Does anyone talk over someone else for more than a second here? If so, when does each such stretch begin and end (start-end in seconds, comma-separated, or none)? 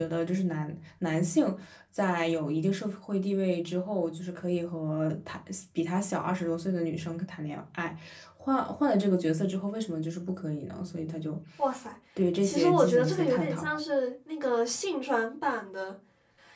12.4-13.6